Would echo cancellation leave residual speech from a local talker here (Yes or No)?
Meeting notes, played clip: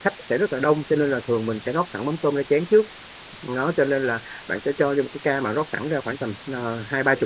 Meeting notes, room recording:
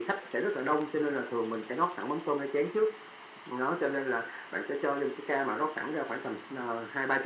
No